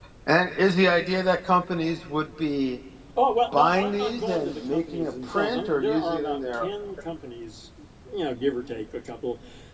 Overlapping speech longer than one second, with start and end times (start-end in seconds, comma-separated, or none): 3.5-6.7